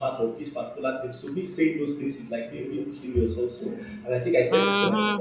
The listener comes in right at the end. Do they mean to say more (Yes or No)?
No